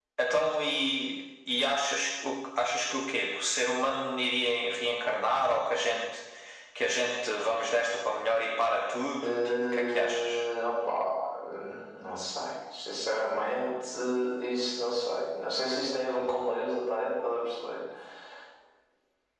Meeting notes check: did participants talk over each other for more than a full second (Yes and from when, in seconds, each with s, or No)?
Yes, from 9.2 s